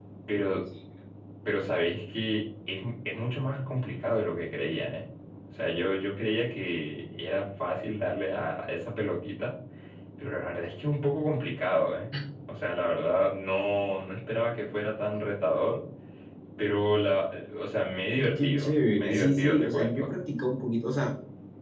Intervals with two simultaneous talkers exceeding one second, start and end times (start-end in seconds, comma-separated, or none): 18.4-20.1